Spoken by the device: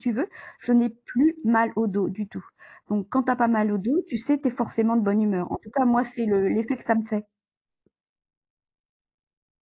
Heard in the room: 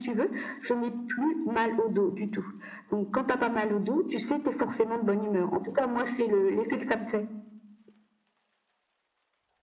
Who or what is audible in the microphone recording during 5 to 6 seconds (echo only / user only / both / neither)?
echo only